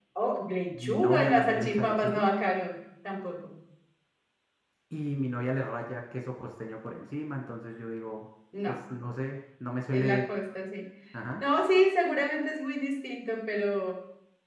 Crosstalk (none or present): present